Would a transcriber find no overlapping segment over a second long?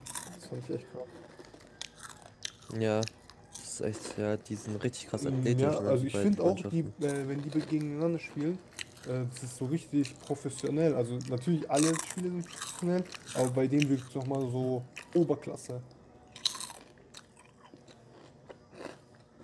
No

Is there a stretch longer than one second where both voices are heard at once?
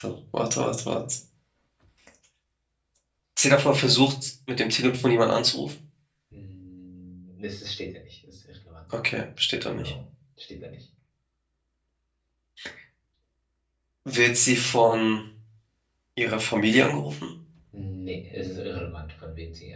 No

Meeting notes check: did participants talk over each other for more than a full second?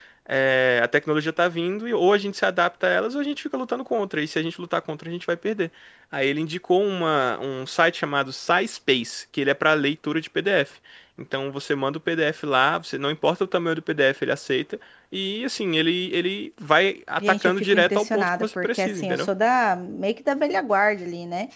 Yes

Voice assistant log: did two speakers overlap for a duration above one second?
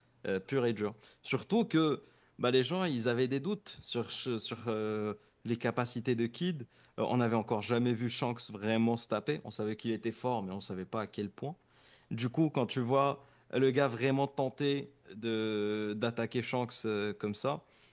No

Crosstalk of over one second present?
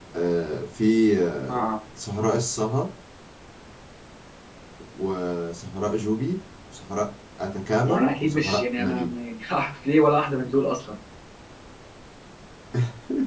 Yes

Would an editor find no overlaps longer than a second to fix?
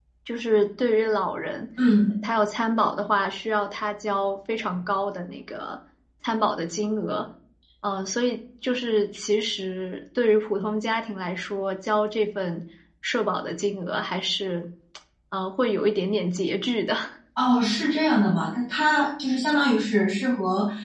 Yes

